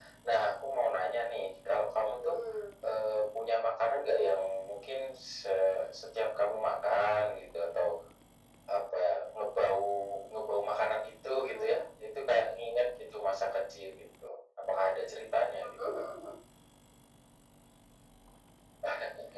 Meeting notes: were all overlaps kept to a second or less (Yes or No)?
Yes